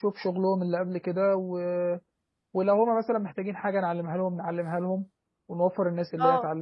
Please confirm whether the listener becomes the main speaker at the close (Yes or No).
No